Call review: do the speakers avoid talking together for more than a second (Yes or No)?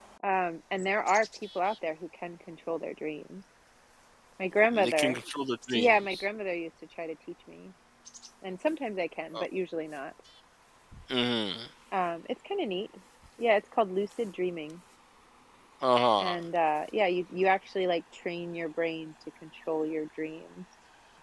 Yes